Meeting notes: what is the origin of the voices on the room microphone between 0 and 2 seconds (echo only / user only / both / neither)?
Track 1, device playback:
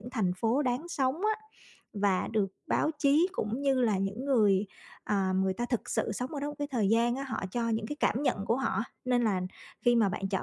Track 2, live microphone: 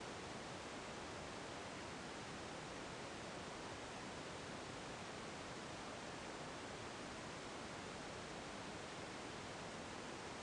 neither